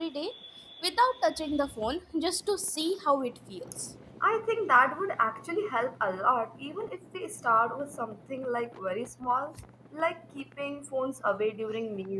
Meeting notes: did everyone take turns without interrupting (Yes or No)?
Yes